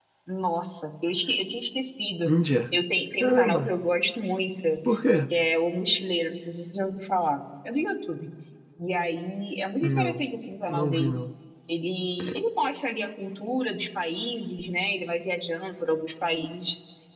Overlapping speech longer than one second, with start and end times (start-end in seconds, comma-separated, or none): none